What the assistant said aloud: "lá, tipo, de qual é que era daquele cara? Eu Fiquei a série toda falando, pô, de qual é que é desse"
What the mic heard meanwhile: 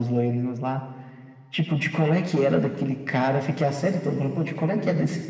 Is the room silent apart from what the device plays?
Yes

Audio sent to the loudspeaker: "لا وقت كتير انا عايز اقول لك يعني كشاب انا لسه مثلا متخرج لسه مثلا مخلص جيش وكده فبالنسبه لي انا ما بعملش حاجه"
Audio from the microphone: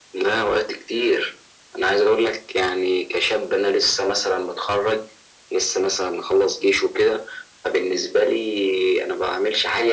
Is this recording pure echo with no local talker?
Yes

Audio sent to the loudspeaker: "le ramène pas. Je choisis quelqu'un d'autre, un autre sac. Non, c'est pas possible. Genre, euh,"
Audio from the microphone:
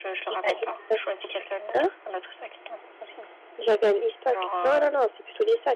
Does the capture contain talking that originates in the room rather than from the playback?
Yes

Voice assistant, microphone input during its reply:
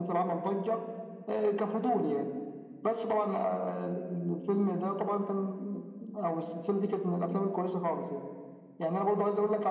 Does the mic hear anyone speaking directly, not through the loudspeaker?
No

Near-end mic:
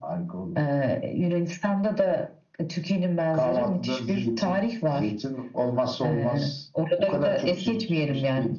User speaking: No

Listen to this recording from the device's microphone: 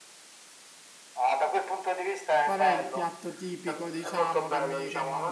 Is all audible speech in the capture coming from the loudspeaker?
No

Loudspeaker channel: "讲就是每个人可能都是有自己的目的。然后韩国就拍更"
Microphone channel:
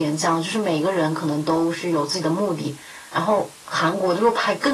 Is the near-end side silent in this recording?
Yes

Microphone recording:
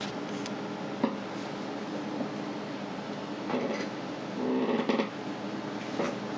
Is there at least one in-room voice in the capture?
No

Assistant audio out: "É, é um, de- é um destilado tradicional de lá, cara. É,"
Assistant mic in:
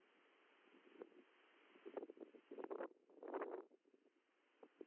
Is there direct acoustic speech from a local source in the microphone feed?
No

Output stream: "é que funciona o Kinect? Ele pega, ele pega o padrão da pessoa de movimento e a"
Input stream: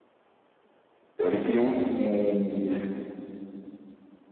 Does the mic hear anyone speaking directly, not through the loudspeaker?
Yes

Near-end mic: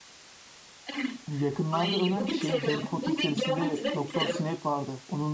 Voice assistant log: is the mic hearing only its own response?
No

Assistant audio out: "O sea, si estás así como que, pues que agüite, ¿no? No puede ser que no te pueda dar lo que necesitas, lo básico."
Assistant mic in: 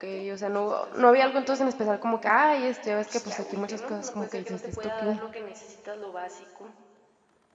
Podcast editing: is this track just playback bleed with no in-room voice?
No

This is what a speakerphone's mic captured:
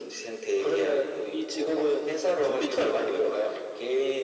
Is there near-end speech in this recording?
No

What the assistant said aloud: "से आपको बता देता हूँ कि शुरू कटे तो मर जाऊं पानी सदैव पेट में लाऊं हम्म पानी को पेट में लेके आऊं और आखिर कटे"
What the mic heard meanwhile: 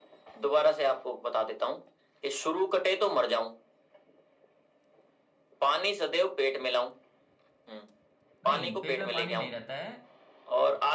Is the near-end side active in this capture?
Yes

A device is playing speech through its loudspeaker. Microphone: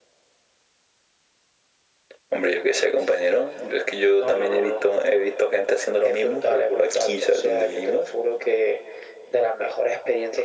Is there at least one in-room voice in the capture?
No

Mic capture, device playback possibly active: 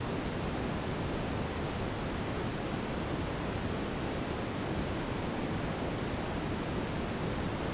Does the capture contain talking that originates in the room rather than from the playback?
No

